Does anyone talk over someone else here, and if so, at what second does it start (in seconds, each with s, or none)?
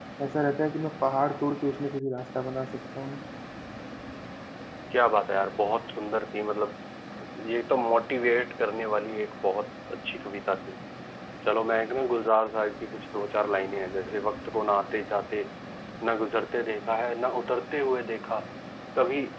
none